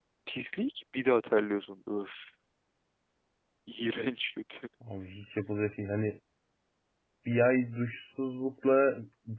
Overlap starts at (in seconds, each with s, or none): none